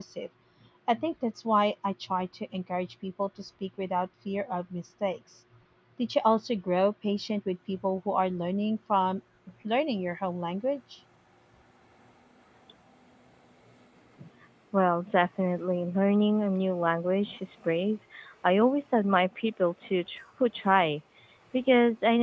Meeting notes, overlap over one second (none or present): none